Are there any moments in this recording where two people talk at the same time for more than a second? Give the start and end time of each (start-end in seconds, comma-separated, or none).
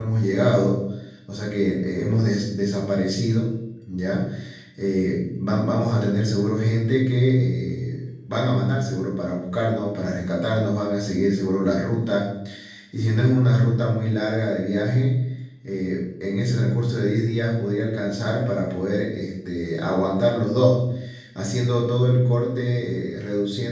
none